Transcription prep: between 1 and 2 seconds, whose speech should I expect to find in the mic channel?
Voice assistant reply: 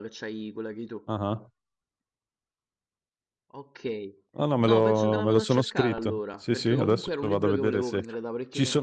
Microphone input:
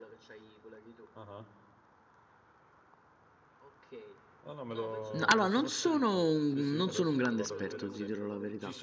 echo only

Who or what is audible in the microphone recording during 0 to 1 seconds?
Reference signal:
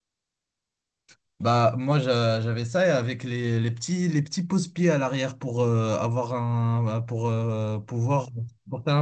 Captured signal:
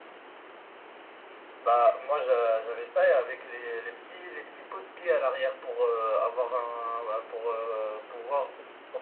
neither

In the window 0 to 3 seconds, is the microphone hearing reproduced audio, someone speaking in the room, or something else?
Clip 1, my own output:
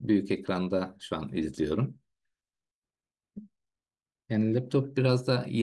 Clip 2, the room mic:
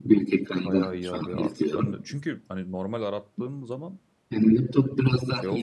both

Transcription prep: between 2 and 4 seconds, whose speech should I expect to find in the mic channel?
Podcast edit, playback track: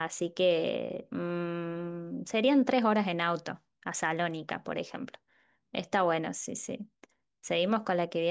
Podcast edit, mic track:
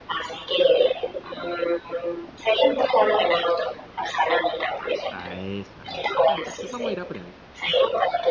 echo only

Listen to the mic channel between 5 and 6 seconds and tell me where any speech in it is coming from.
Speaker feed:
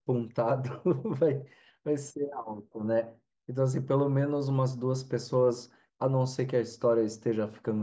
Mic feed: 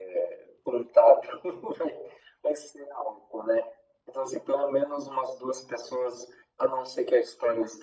echo only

